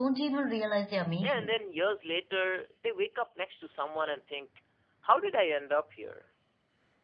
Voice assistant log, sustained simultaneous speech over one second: none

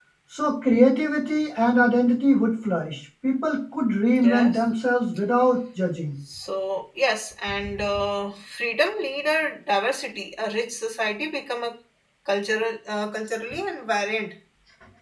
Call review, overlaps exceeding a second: none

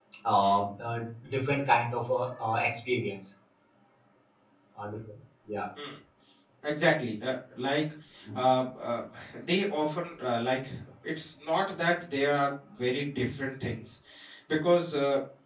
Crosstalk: none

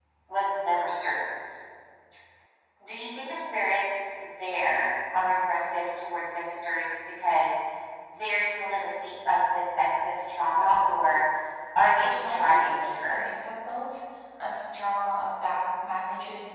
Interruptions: present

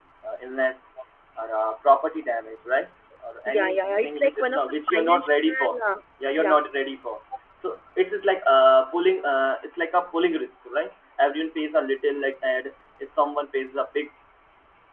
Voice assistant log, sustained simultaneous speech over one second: present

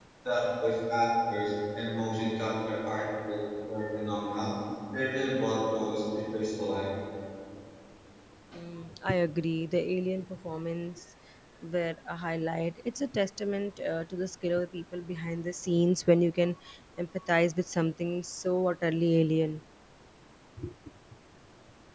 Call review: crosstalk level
none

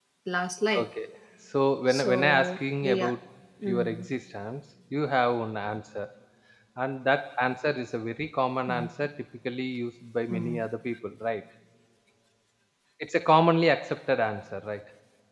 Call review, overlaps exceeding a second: present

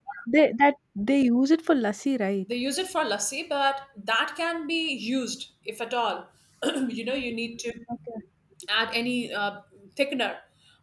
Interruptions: none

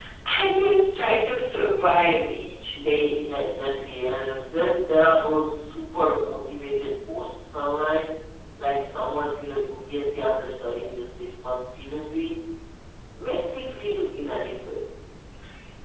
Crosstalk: none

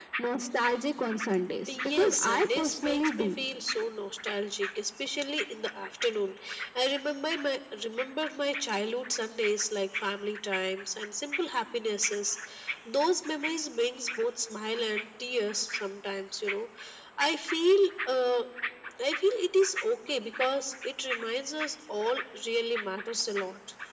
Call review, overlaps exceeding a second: present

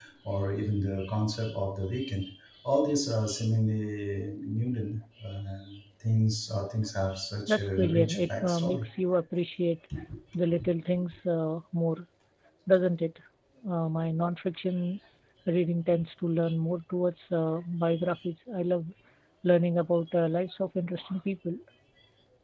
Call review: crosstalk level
present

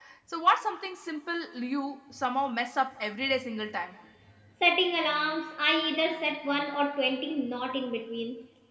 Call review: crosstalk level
none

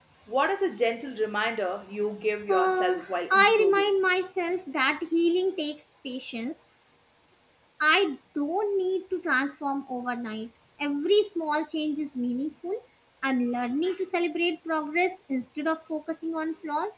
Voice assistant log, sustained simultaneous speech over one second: present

